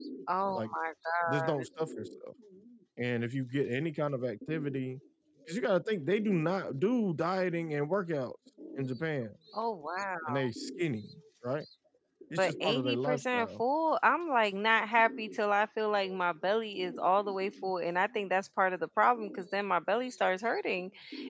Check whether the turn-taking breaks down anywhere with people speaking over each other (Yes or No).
Yes